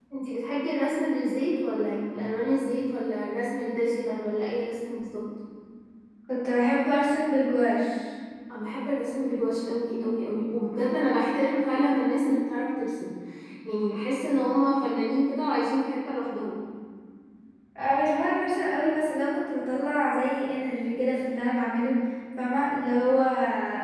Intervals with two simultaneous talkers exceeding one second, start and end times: none

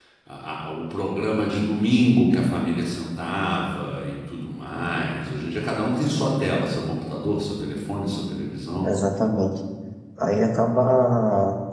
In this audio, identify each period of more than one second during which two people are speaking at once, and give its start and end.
none

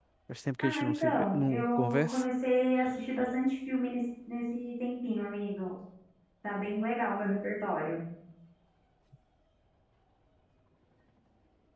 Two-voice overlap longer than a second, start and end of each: 0.6-2.2

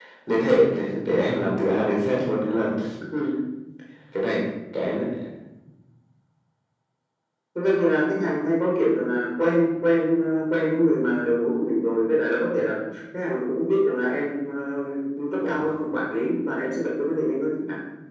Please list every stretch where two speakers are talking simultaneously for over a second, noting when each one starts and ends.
none

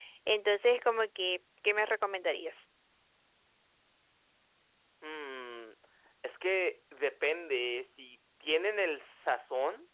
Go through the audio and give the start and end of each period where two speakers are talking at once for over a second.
none

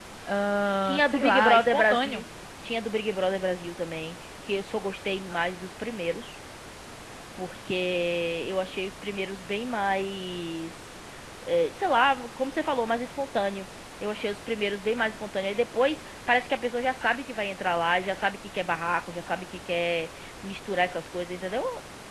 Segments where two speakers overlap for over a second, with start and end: 0.8-2.2

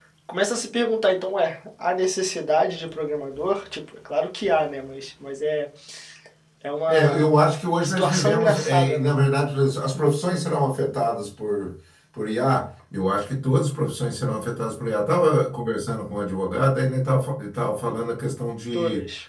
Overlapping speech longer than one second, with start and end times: 7.8-9.1

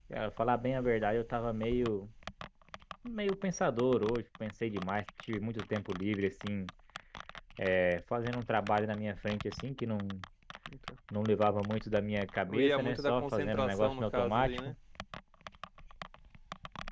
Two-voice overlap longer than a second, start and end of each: 12.5-14.7

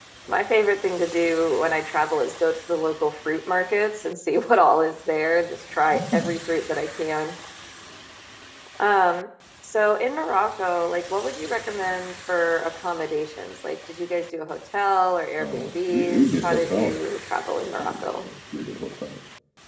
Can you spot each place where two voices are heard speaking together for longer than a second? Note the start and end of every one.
15.4-16.9

